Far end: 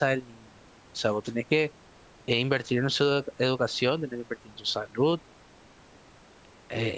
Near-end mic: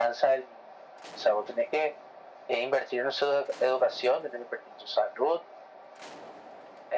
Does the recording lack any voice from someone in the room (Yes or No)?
Yes